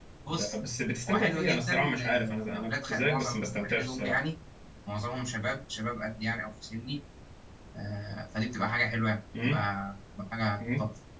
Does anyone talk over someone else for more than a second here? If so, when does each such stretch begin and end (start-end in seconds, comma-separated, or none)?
1.1-4.2